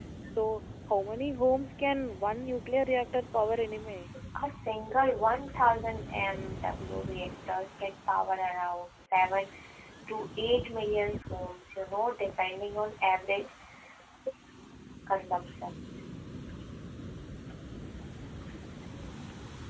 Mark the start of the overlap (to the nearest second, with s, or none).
none